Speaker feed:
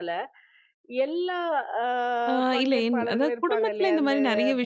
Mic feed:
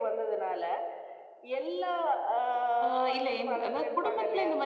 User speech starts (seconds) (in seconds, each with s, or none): none